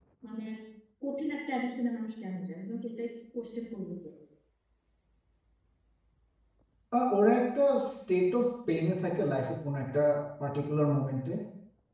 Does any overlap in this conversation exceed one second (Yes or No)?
No